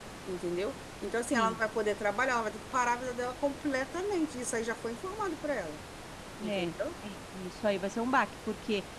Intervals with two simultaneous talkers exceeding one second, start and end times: none

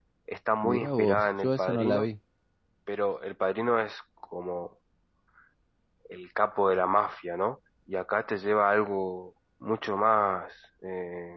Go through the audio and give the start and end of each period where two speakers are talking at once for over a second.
0.6-2.1

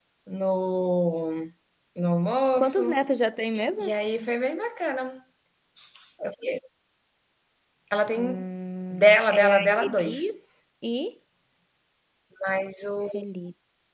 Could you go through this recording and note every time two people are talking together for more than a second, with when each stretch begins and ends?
8.9-10.3

